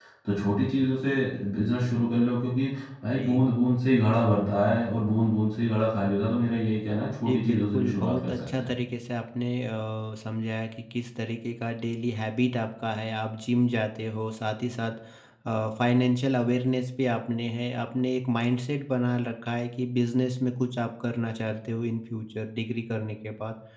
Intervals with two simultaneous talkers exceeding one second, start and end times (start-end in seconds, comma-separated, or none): 7.2-8.7